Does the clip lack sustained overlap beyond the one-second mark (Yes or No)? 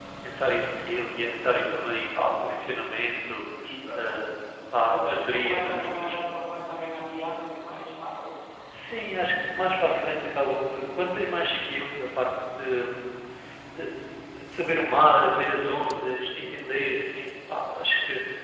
No